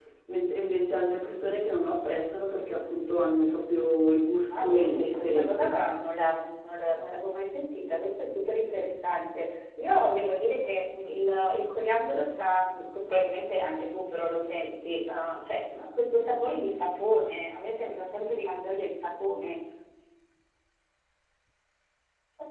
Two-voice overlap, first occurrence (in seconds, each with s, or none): 4.5 s